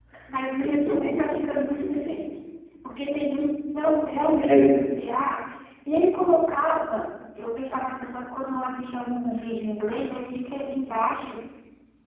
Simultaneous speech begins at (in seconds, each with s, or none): 0.6 s